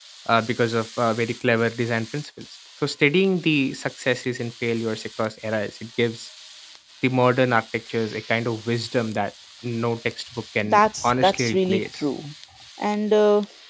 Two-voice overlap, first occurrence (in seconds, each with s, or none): 10.6 s